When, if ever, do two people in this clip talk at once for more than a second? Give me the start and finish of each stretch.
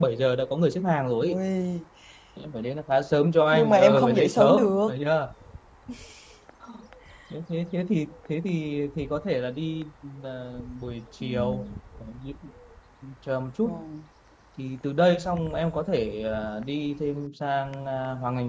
3.5-4.9

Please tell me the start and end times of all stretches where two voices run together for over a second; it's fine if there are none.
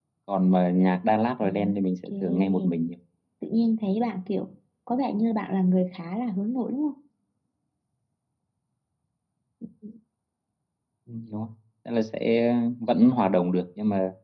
1.4-2.7

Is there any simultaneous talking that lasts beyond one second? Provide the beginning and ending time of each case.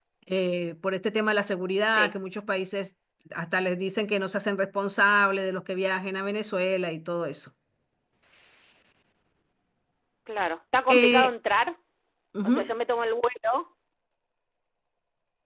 none

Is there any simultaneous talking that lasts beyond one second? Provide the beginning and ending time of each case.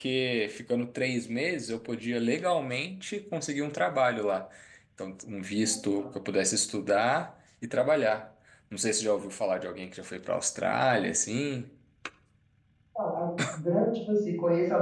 none

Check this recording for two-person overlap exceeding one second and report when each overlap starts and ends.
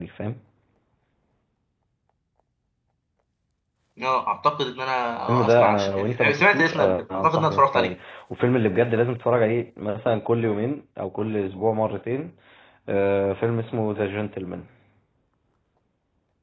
5.3-7.9

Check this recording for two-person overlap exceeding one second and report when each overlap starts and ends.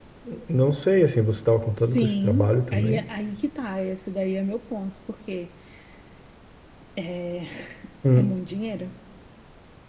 1.8-3.0

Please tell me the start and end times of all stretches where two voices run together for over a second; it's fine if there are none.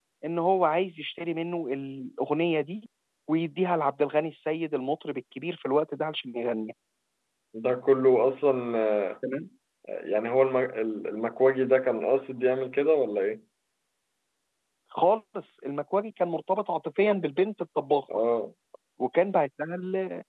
none

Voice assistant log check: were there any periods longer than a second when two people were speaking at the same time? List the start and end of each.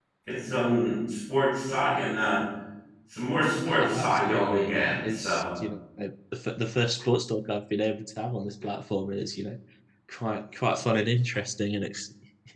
3.8-5.4

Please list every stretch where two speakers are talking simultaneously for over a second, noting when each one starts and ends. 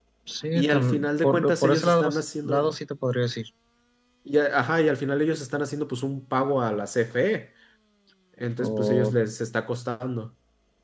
0.6-2.1

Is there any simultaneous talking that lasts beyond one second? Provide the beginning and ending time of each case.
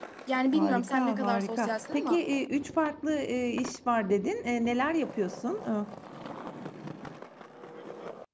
0.5-2.2

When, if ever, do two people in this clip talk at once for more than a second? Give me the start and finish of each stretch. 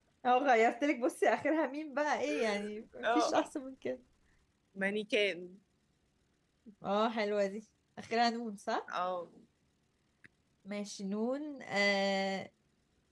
none

